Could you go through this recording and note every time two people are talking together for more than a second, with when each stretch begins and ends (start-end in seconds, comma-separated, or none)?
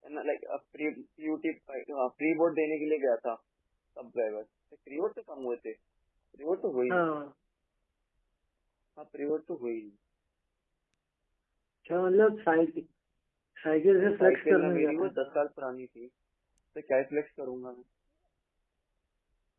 14.0-15.2